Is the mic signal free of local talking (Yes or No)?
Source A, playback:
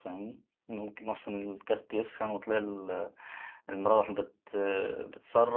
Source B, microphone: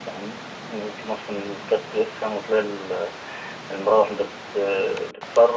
Yes